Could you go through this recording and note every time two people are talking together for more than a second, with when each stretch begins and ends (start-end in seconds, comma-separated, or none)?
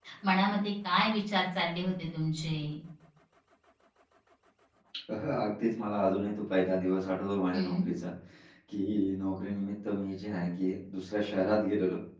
none